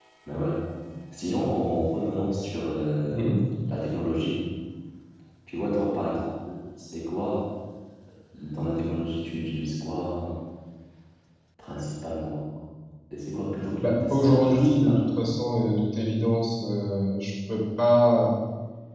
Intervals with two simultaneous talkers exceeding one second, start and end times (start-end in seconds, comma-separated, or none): 13.8-15.1